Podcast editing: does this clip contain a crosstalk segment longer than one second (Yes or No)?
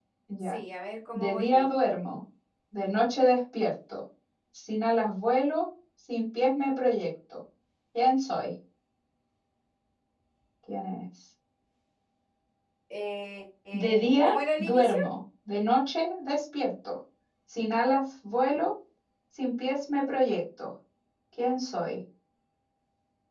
Yes